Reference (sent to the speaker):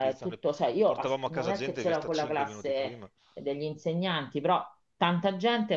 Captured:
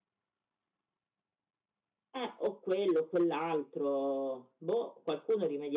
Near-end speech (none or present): present